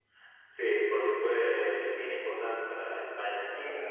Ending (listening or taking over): taking over